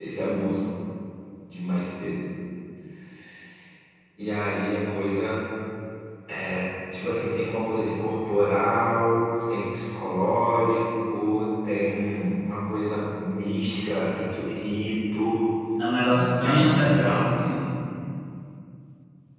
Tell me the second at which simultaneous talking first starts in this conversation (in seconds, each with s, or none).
16.1 s